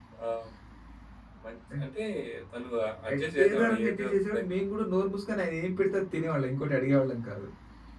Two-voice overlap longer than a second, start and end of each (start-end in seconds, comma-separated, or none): 3.1-4.5